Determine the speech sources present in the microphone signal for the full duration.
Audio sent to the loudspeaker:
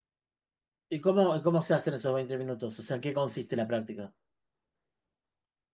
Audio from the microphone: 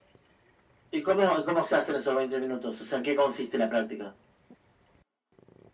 echo only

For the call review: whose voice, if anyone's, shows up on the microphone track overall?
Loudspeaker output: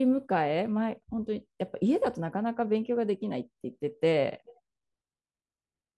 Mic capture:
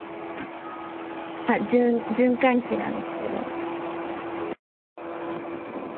user only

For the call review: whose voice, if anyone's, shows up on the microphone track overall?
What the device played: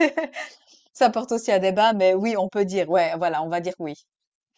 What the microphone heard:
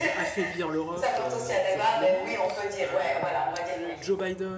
both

